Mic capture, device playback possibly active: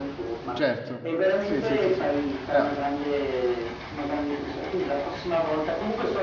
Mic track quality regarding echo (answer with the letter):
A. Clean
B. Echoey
B